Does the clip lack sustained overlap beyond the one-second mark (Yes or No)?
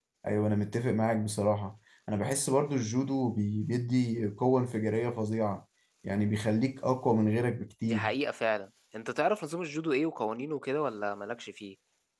Yes